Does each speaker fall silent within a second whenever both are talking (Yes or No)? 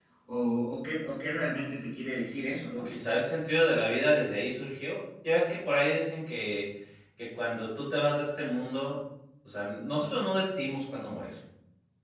Yes